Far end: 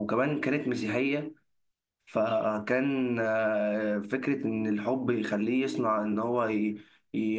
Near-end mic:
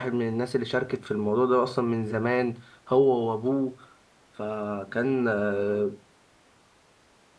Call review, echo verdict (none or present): none